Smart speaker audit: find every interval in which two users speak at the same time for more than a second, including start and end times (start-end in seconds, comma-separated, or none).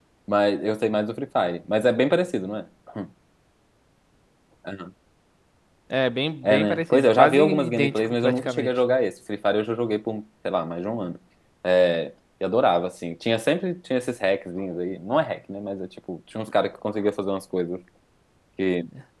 6.4-8.7